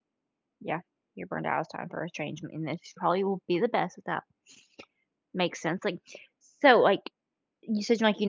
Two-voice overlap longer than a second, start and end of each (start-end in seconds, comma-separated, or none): none